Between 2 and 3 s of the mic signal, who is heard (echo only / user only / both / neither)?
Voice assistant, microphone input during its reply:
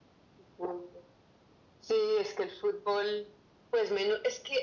echo only